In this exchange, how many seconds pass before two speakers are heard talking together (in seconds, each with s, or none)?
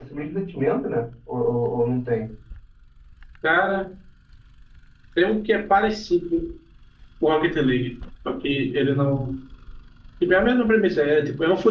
none